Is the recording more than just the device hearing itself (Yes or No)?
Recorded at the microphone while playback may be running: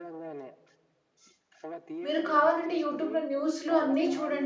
Yes